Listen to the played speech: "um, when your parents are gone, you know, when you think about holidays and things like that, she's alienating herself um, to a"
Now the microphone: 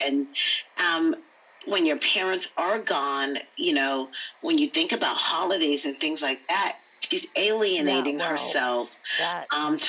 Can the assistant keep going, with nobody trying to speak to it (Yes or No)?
No